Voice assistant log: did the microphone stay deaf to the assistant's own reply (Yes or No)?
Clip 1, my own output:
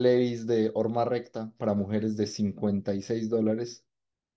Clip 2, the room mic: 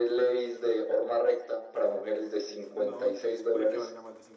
No